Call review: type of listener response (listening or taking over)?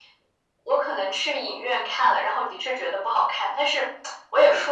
listening